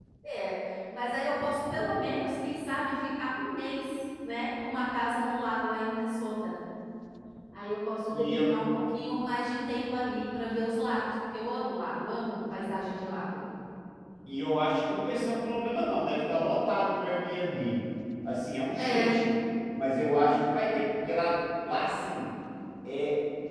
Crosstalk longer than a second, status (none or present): none